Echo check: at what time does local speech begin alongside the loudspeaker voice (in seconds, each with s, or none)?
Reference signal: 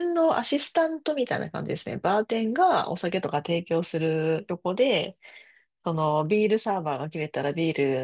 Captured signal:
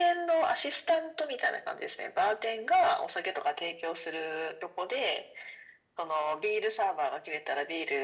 none